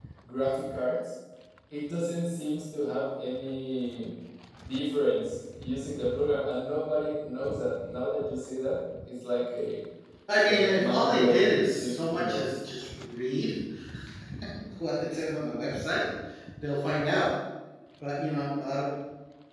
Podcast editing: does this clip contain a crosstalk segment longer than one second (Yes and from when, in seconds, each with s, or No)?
Yes, from 10.4 s